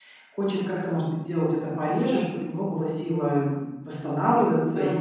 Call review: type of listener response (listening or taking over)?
listening